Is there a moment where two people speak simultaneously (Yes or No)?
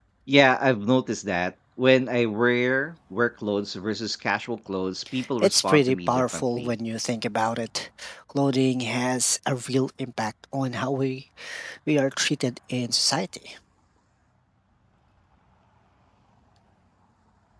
Yes